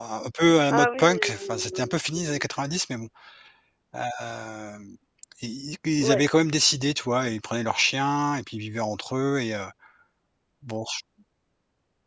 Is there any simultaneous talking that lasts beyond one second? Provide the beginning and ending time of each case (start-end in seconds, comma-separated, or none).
0.7-2.5